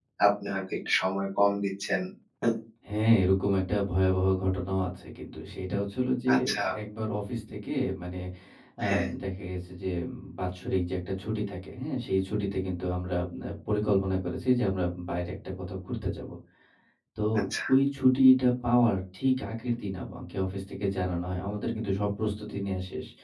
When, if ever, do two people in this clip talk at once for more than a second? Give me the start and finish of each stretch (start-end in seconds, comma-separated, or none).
none